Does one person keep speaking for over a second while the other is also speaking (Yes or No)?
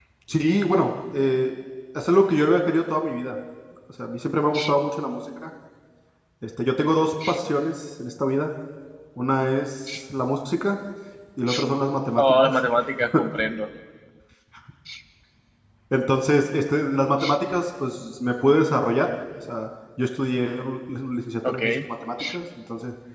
No